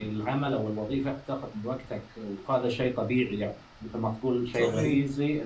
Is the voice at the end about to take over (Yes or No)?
No